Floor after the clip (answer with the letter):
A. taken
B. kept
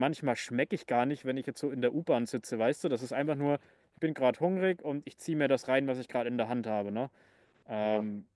B